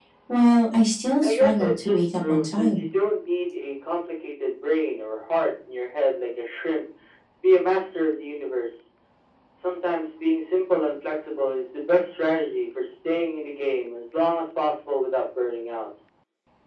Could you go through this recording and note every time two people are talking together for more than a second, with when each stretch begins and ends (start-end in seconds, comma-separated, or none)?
1.2-2.9